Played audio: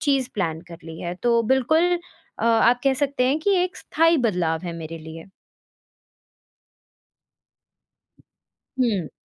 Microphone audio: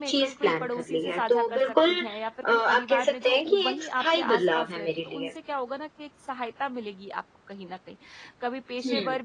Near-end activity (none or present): present